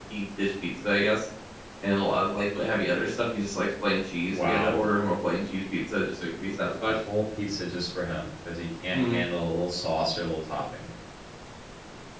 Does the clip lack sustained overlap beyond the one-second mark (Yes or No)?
Yes